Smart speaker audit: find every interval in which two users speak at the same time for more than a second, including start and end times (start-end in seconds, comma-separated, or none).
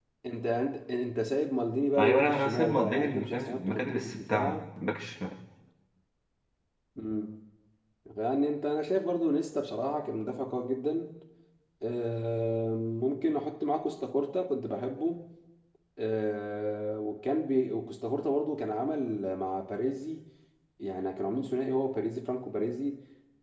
2.0-4.6